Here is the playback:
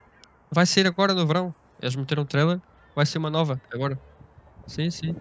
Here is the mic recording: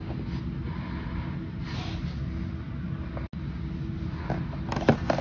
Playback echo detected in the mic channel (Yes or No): No